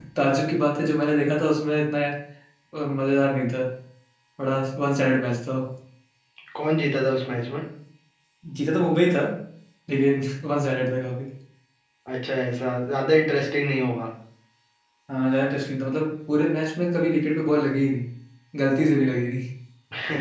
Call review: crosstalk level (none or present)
none